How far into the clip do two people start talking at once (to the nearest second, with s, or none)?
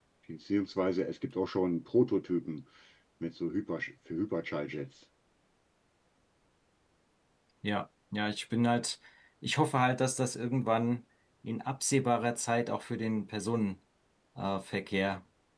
none